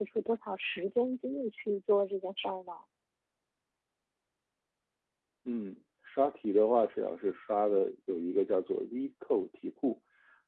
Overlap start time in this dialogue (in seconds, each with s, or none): none